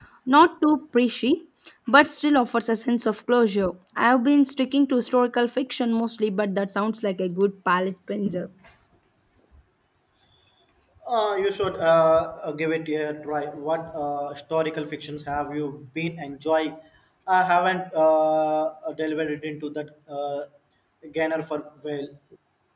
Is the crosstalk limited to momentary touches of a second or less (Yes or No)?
Yes